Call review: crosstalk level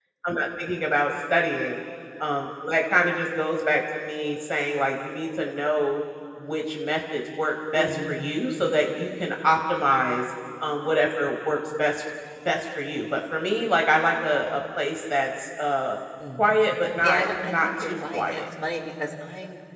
present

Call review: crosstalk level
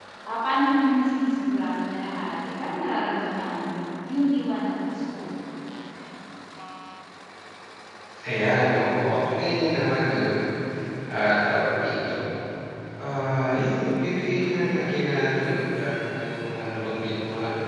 none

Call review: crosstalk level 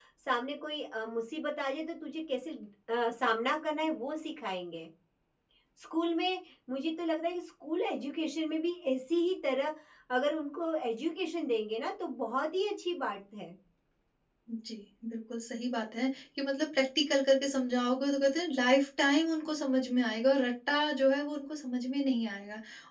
none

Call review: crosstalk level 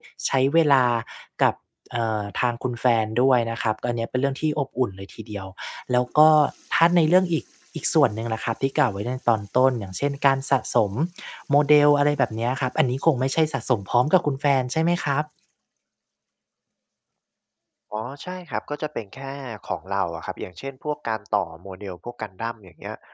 none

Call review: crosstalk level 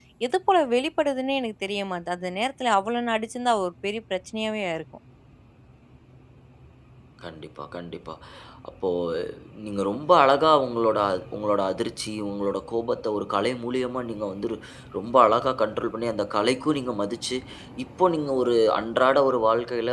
none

